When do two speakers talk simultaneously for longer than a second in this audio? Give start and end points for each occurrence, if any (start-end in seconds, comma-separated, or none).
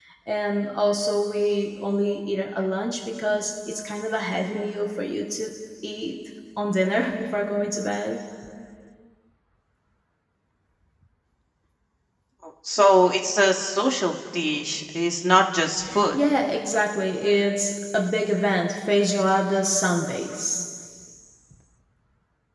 none